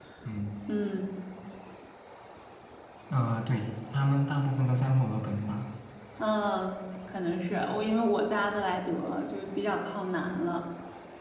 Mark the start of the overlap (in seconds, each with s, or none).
none